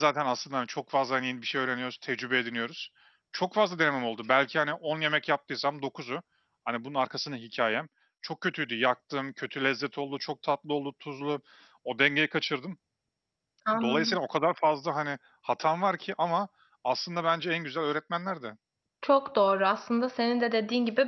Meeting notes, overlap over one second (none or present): none